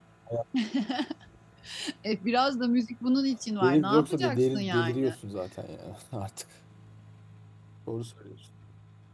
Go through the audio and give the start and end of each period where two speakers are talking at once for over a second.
3.6-5.1

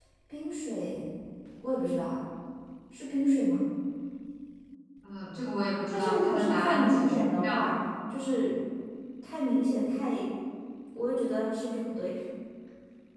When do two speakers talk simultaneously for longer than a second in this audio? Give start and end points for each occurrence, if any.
5.9-7.7

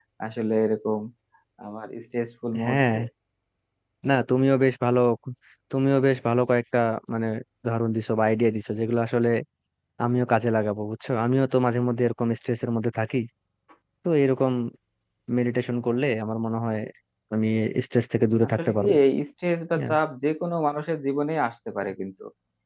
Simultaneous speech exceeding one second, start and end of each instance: none

